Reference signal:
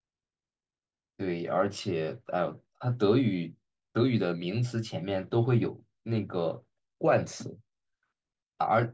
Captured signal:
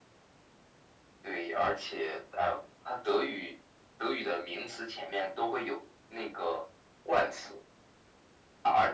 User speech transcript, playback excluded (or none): none